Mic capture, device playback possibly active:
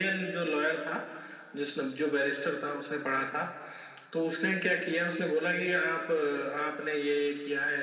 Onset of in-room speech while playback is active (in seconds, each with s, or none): none